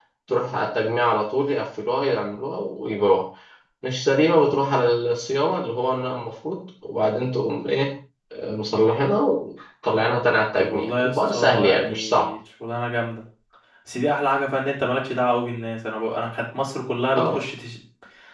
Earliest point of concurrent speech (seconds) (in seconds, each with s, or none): 10.6 s